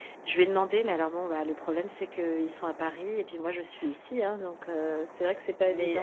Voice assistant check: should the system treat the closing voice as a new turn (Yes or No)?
Yes